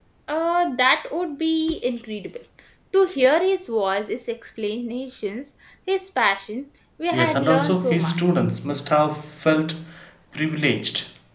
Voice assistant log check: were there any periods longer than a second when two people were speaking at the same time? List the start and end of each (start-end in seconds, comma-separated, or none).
7.1-8.4